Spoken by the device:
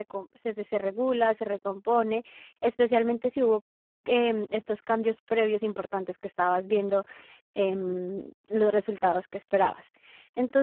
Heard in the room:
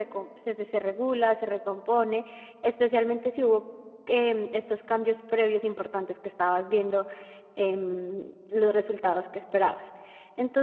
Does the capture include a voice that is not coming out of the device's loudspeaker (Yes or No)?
No